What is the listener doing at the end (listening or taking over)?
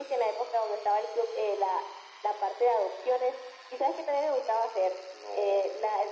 listening